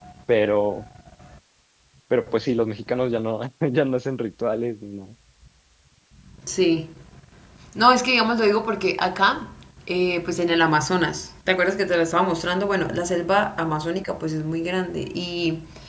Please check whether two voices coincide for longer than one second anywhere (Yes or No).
No